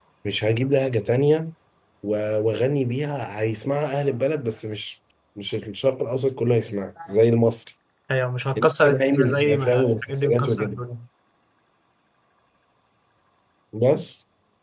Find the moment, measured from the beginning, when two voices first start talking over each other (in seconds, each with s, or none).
8.6 s